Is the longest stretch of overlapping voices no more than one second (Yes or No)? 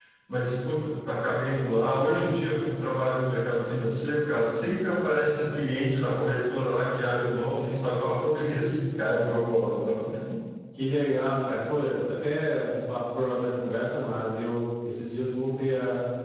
Yes